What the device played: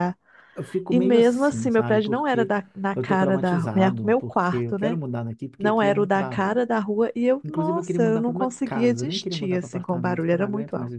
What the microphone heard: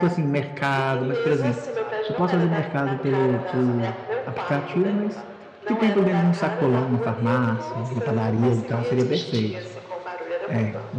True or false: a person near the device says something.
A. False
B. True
B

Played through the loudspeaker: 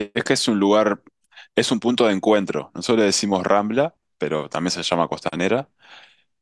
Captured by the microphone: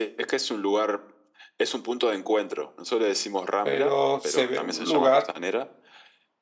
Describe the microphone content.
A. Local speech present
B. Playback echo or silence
A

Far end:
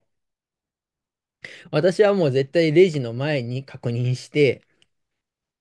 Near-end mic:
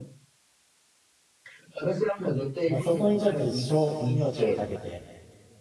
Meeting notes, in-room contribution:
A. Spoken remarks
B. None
A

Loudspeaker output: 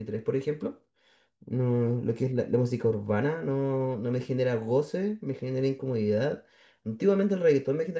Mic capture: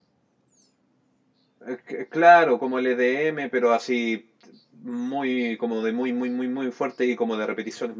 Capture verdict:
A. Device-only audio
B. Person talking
B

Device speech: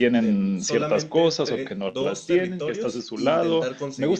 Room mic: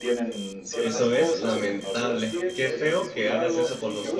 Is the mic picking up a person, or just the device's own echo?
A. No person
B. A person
B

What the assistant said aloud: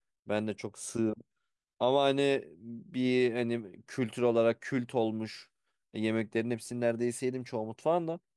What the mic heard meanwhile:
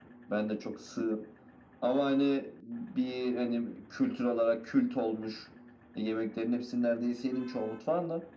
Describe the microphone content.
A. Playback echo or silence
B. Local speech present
A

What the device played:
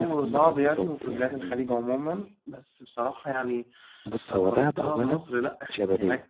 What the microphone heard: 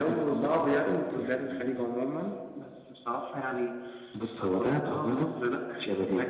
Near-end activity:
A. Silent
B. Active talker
A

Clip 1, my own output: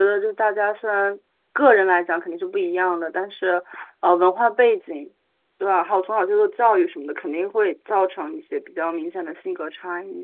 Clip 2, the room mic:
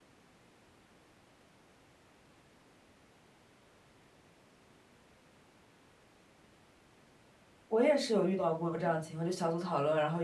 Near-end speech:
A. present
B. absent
A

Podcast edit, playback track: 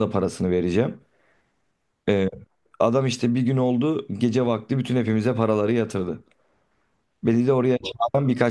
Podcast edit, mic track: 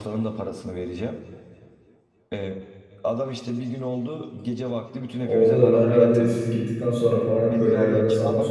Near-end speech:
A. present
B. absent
A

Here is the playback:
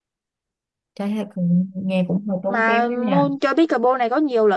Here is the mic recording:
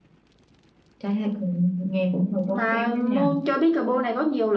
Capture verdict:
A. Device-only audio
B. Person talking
A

